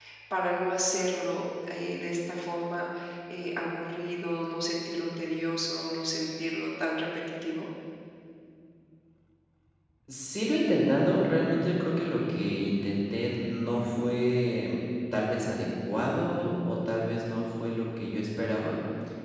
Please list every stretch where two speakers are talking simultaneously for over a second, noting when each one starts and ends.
none

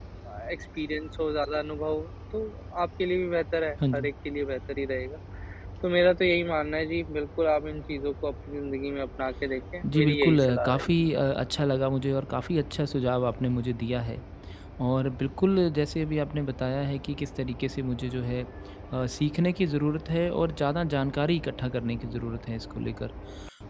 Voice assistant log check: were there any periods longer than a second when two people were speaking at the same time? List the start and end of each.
9.8-11.1

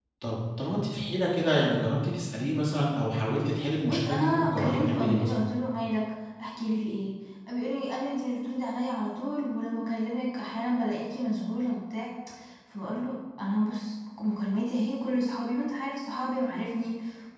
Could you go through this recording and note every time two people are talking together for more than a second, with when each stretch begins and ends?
3.9-5.3

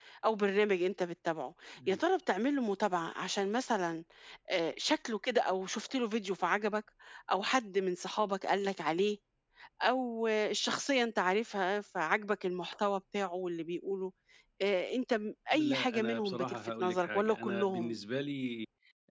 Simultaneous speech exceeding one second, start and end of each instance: 15.5-17.9

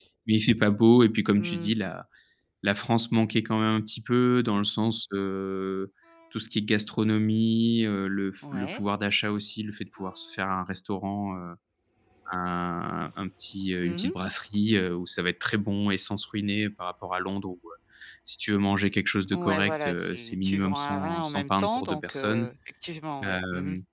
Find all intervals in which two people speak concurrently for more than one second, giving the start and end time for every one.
19.3-22.5

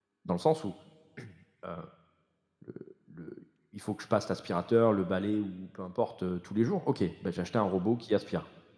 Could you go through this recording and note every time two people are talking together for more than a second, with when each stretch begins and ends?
none

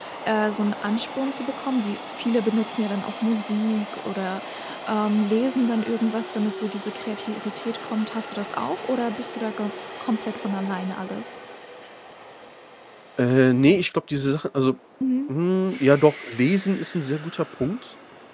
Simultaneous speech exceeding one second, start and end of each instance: none

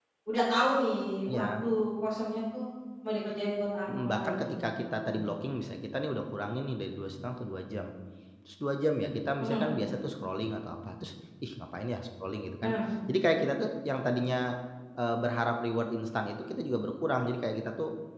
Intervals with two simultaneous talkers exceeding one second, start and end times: 3.9-5.2

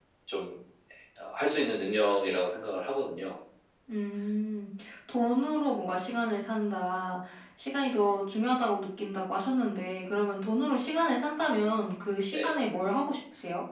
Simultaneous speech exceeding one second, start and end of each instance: none

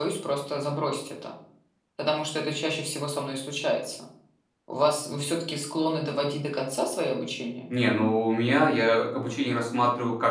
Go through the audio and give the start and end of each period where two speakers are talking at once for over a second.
none

